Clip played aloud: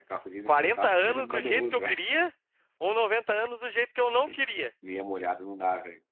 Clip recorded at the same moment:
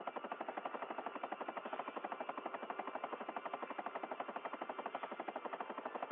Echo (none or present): none